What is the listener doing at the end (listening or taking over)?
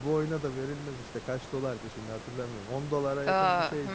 taking over